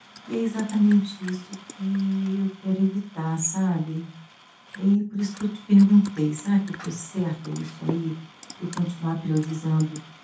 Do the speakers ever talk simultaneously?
No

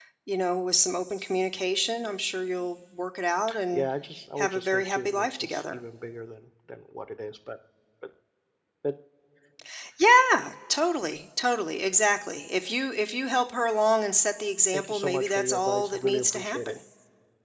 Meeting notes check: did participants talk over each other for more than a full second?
Yes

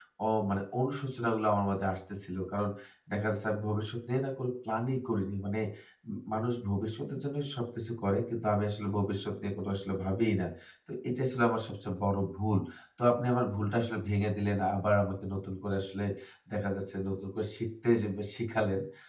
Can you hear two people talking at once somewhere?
No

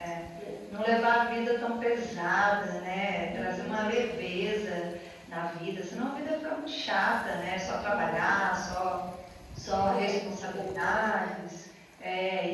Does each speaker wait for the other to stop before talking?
No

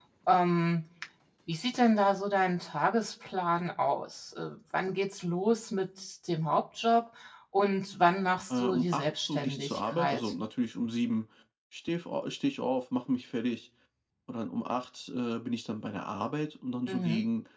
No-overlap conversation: No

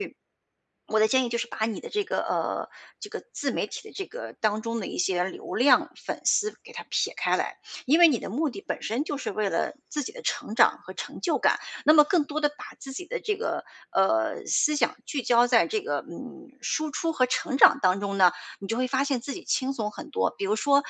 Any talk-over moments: No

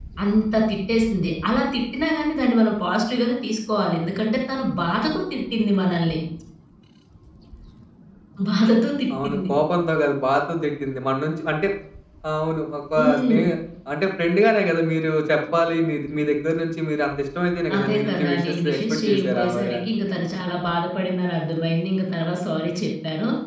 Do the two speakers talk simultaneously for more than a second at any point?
Yes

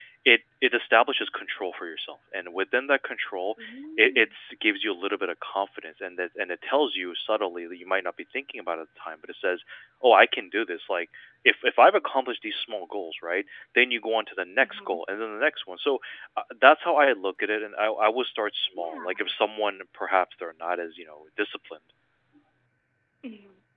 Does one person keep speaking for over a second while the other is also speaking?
No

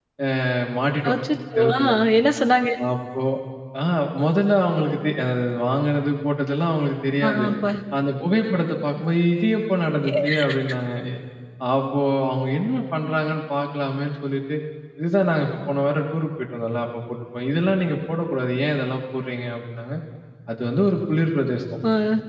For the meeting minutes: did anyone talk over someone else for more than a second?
No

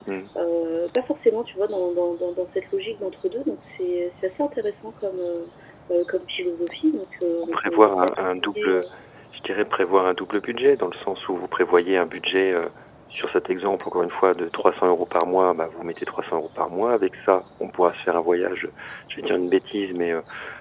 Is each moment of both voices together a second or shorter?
No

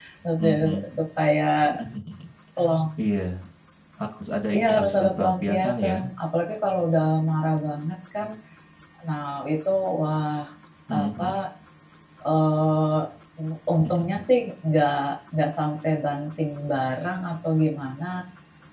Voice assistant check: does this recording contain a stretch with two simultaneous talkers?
Yes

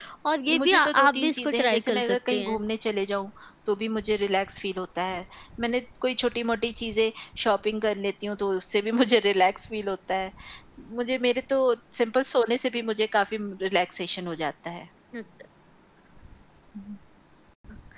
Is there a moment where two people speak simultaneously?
Yes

